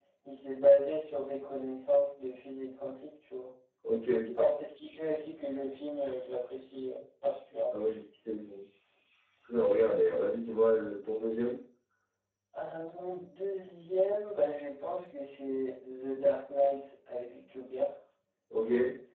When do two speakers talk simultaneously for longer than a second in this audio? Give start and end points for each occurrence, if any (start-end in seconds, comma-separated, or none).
none